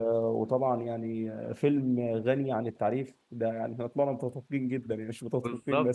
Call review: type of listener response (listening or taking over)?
taking over